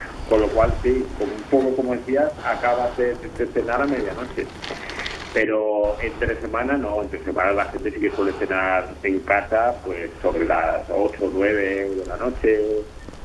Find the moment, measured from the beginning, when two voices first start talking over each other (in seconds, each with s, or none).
none